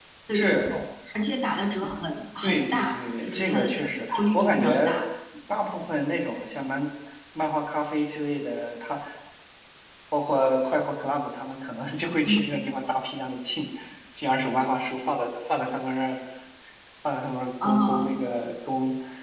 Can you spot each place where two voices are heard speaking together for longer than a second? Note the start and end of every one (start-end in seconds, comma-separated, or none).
2.4-5.0